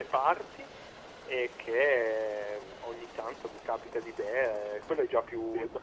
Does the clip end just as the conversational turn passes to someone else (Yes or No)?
No